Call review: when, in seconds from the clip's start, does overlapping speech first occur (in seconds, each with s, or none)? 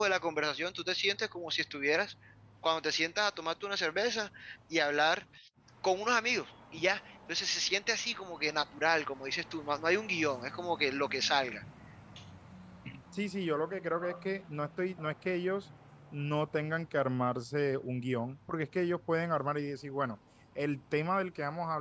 none